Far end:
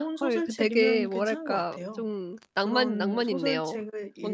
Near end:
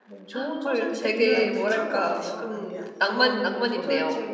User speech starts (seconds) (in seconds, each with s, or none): 1.3 s